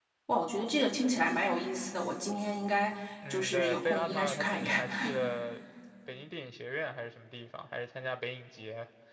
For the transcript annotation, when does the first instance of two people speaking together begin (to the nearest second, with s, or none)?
3 s